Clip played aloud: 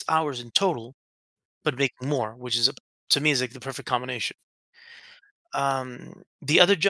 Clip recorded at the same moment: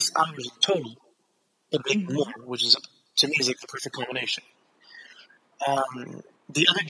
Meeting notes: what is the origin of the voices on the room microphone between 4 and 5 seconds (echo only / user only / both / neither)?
echo only